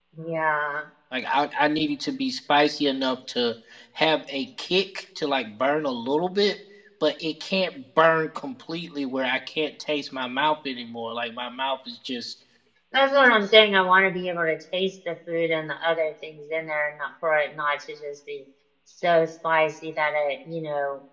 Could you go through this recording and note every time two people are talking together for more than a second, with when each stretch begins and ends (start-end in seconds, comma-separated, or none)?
none